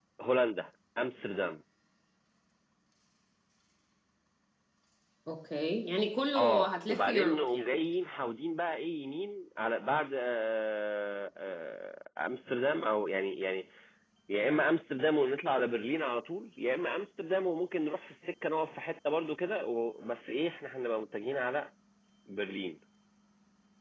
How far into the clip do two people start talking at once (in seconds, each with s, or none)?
6.4 s